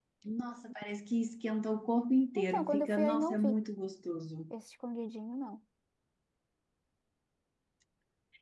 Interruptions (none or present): present